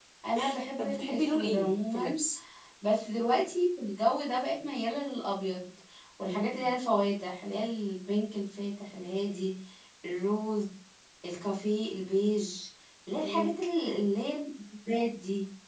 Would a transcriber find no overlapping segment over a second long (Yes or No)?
No